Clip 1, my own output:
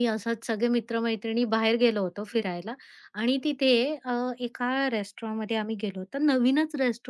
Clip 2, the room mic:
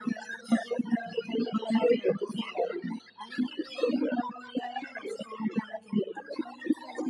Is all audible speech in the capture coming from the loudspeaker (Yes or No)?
Yes